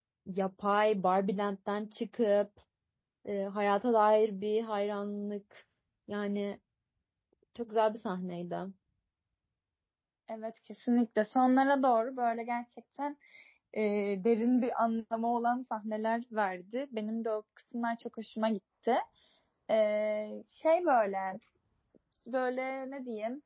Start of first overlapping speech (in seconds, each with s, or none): none